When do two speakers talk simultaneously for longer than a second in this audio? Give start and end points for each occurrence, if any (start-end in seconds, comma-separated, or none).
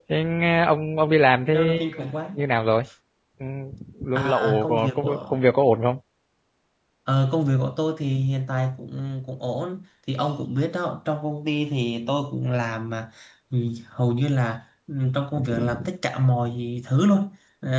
4.2-5.4